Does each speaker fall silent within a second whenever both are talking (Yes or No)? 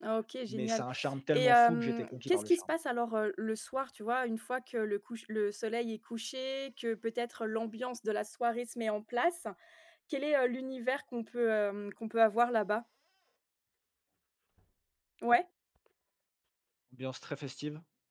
No